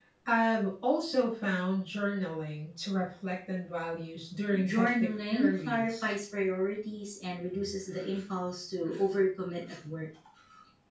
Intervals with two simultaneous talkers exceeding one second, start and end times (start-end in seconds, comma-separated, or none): 4.6-6.0